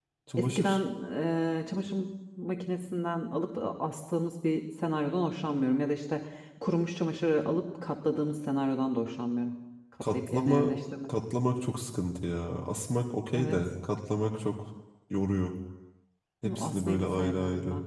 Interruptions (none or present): present